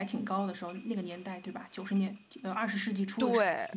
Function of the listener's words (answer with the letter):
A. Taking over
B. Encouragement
A